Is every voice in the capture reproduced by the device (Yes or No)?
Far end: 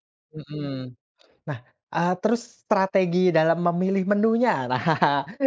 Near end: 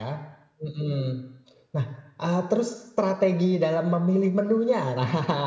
Yes